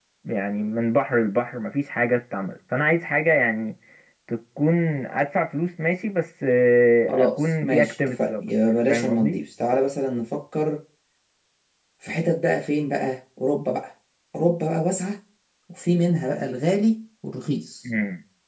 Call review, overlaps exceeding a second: present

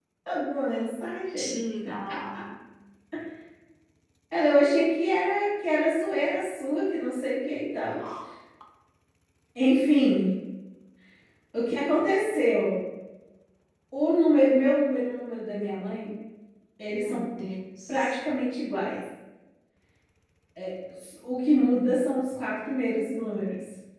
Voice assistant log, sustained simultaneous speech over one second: none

